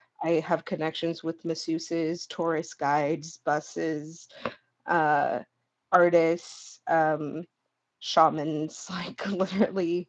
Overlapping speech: No

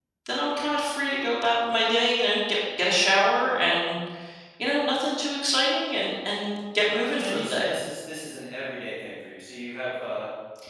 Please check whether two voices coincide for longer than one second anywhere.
No

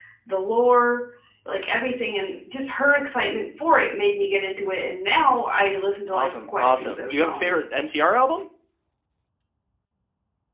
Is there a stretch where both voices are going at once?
Yes, from 6.1 s

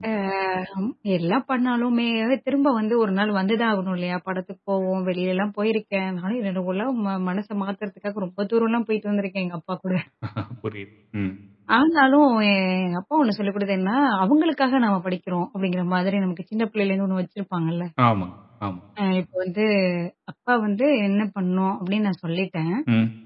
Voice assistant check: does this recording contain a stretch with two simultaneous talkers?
No

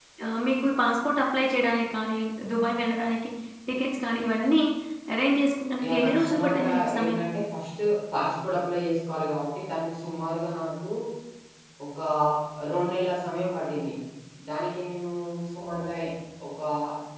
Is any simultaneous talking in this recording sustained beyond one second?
Yes, from 5.8 s

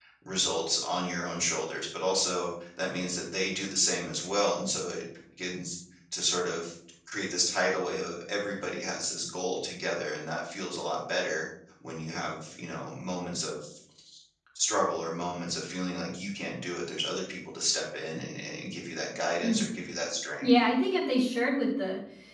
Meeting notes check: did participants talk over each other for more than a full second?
No

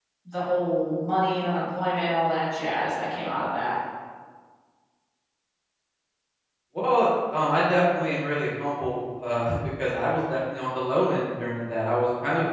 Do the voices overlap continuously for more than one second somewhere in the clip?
No

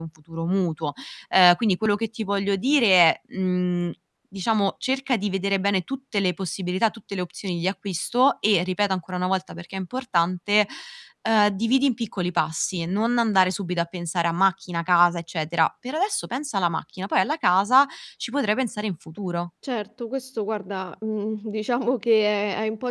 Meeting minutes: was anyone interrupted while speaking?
No

